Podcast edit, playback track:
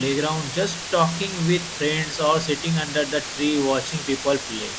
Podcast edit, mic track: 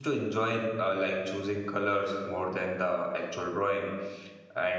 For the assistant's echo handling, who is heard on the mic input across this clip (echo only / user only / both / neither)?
user only